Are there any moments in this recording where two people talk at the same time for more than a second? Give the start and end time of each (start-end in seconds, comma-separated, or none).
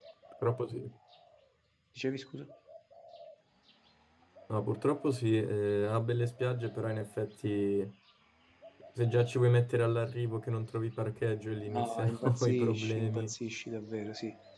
11.7-13.3